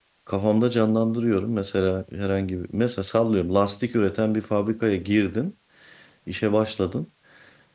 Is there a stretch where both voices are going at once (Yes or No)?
No